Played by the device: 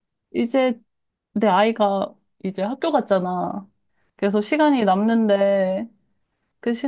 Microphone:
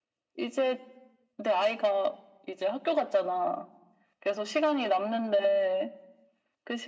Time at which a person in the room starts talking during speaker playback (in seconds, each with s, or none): none